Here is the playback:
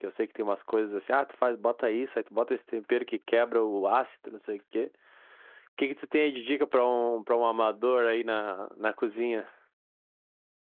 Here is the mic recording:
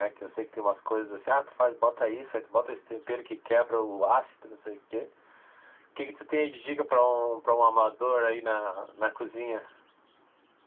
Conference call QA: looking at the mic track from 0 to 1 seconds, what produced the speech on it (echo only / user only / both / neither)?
echo only